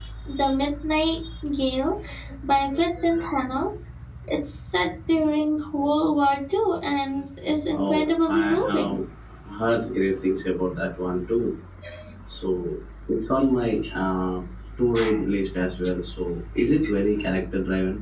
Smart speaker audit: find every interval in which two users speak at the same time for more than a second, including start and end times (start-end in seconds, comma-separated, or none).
7.7-9.0